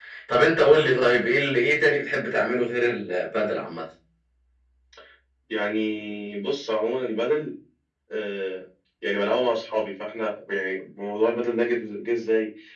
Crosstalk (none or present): none